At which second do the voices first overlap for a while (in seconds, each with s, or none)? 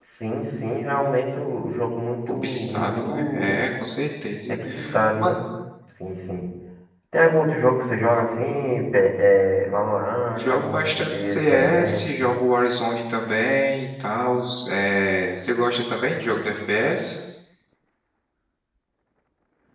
2.3 s